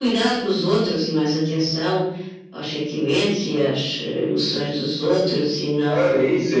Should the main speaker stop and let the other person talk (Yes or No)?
Yes